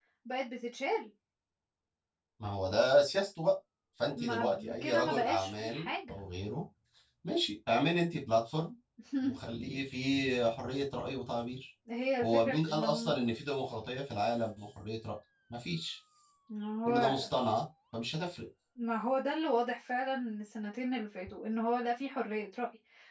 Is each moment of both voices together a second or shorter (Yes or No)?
No